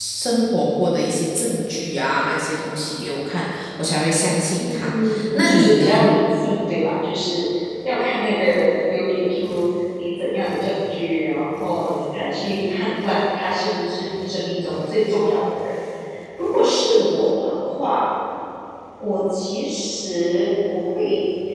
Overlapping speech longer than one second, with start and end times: 4.5-6.0

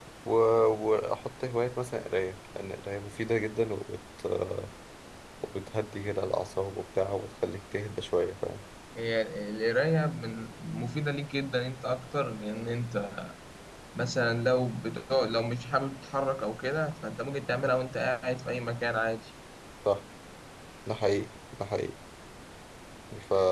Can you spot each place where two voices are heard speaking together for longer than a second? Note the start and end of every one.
none

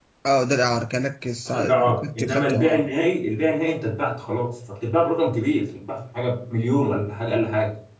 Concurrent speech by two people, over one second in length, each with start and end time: 1.5-2.9

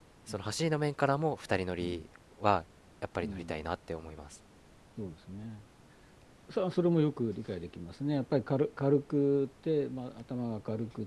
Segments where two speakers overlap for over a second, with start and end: none

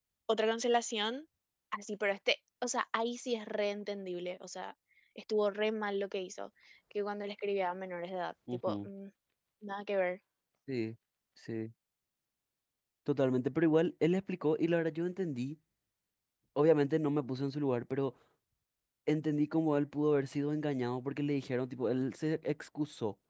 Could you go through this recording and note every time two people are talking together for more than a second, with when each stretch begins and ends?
none

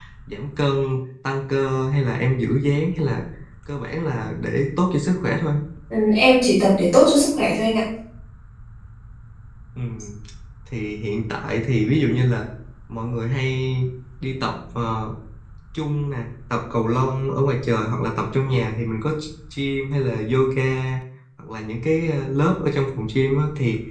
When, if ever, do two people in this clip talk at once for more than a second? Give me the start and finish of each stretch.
none

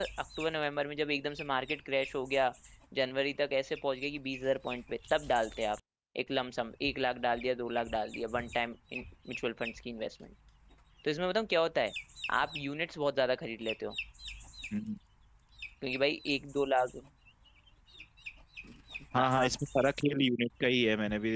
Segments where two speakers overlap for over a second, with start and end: none

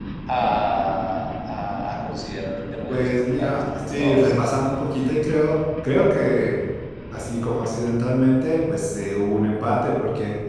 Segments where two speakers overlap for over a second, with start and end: 2.9-4.3

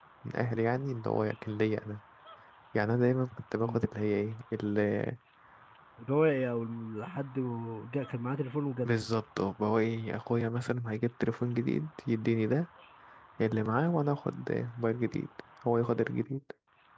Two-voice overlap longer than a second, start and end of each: none

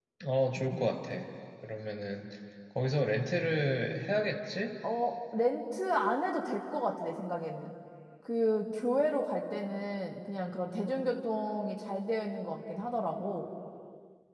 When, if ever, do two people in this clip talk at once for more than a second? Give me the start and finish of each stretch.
none

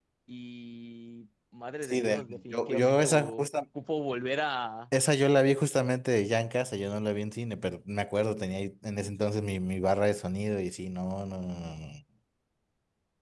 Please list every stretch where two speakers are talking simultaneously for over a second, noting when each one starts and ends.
1.8-3.5

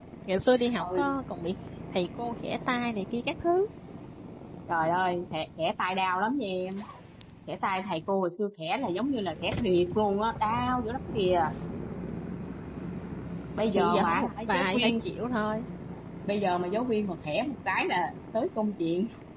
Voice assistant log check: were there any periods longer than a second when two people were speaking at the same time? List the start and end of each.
13.7-15.0

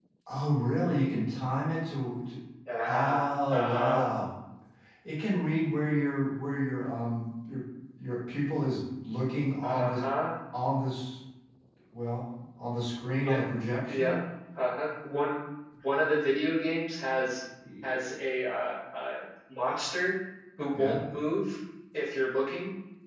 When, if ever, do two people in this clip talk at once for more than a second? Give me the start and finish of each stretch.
2.9-4.0

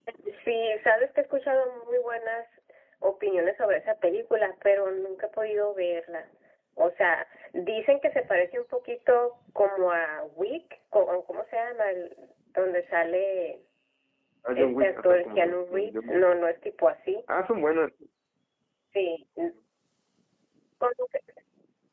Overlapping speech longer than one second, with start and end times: 14.6-16.2

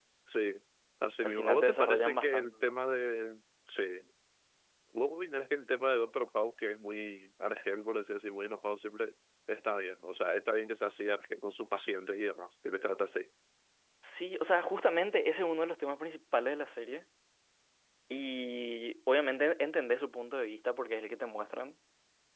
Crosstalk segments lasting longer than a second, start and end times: 1.2-2.5

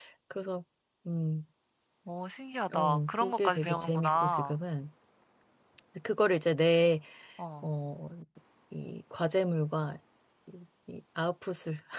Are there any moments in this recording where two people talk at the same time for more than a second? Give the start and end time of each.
2.7-4.5

